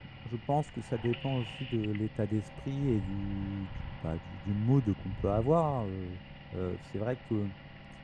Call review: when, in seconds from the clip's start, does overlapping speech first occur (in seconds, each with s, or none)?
none